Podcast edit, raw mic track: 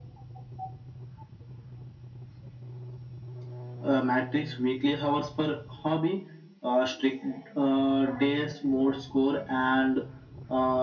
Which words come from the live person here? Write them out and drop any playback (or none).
none